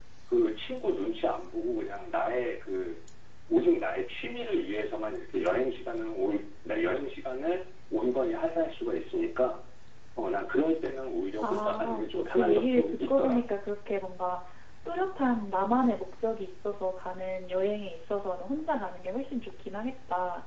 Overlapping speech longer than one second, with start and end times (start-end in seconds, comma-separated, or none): 11.4-13.4